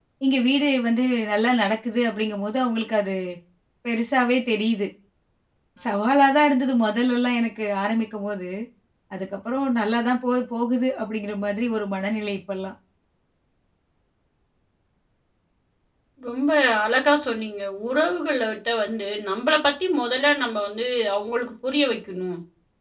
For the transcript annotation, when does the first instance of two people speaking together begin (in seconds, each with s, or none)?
none